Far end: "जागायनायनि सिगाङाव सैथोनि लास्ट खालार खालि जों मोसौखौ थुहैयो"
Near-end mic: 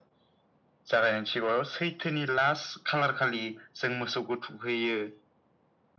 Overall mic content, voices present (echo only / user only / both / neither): echo only